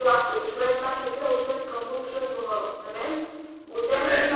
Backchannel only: Yes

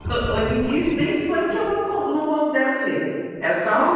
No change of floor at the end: No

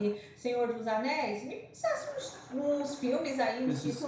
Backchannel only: Yes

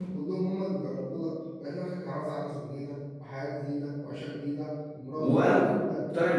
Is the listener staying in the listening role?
No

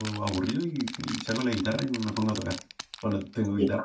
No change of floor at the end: Yes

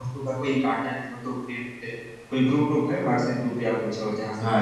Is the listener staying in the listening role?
No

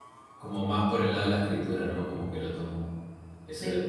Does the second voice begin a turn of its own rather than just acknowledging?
No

